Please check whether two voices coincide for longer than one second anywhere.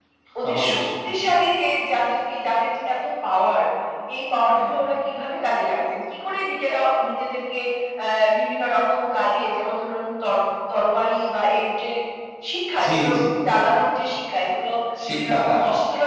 No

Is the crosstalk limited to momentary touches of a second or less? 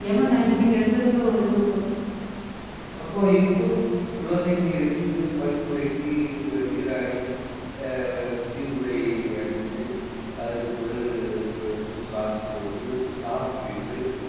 Yes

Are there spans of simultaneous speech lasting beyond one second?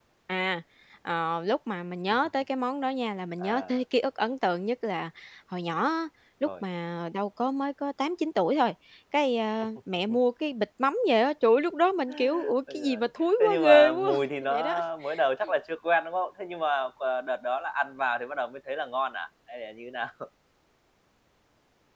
Yes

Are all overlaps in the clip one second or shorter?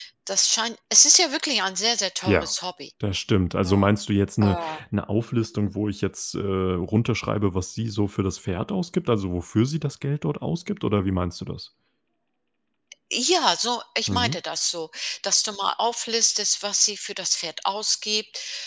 Yes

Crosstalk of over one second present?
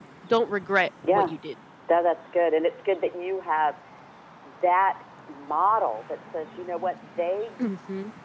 No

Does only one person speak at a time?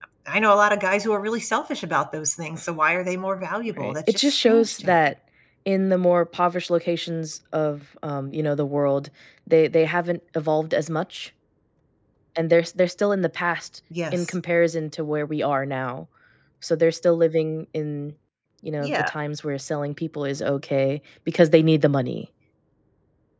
No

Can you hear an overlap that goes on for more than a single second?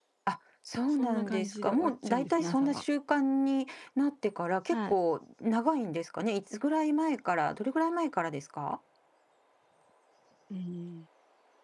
Yes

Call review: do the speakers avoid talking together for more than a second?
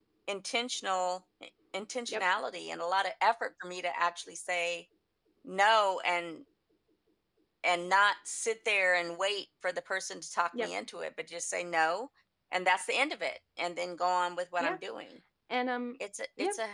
Yes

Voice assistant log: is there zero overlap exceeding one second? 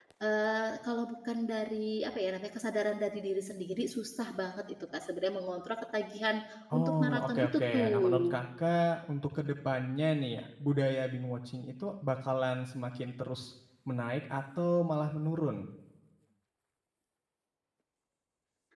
No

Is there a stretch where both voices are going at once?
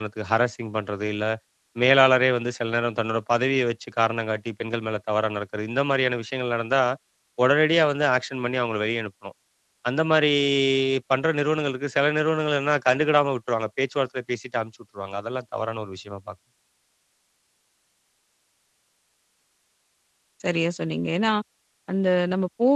No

